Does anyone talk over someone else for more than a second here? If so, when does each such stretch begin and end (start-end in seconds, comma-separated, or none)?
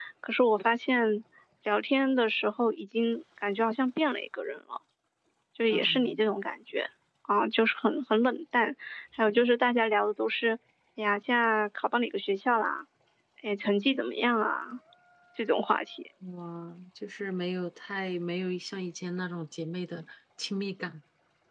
none